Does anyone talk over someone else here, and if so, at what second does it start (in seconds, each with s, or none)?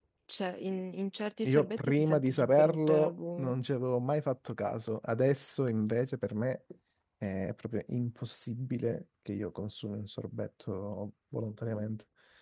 1.4 s